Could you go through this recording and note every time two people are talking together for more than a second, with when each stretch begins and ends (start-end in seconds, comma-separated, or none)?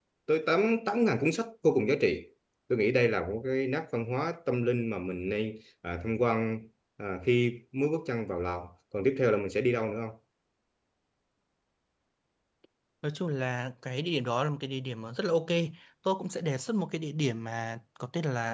none